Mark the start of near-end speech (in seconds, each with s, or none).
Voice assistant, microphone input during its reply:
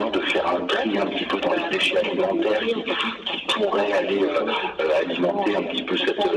none